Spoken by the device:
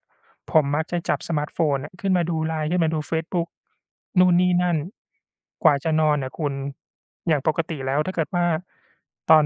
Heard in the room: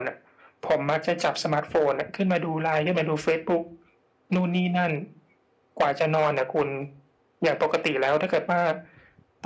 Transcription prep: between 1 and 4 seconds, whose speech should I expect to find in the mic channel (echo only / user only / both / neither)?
echo only